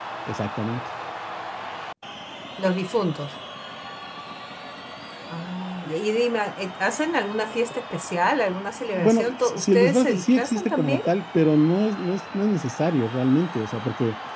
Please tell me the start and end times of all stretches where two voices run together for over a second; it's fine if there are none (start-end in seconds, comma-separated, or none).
8.9-11.0